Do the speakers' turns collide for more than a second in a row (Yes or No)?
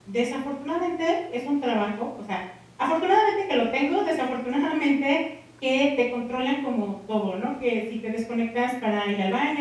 No